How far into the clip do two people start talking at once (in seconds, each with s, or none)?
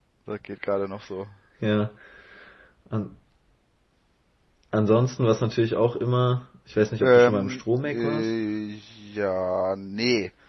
7.0 s